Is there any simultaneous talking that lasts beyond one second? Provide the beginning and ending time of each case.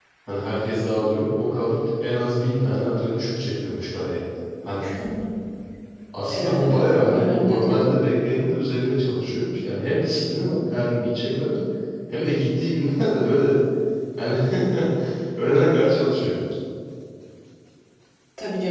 6.3-7.9

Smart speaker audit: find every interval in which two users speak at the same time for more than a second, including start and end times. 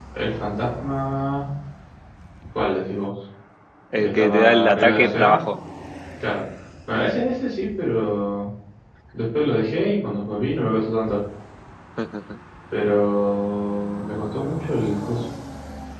3.9-5.4

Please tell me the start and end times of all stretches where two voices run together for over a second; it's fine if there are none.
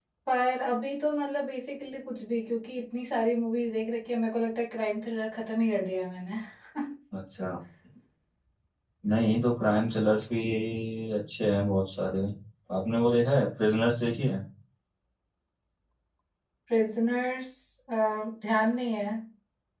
none

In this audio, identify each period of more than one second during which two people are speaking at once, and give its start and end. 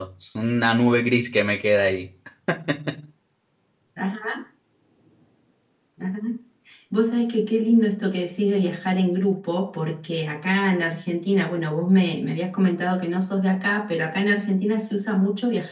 none

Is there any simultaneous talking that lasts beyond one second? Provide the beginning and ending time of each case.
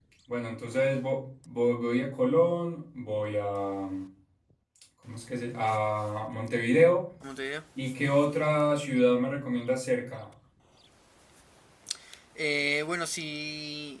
none

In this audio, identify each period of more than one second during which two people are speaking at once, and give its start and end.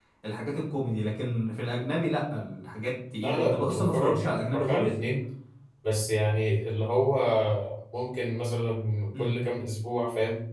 3.2-4.9

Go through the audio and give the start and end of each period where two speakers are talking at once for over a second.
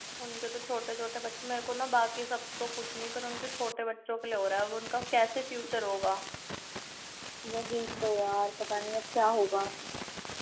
none

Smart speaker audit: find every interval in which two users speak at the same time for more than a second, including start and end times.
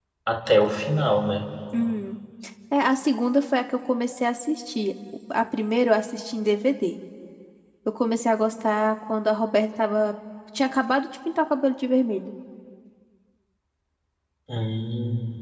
none

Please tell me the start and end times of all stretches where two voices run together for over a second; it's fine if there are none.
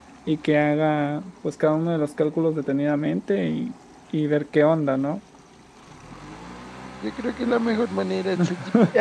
none

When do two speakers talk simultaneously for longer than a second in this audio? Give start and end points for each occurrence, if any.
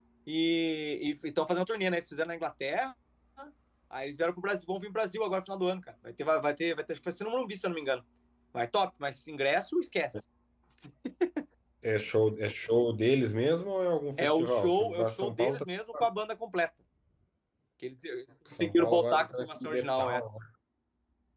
14.2-15.7, 18.5-20.2

